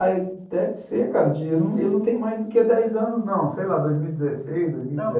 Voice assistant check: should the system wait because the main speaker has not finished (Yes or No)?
No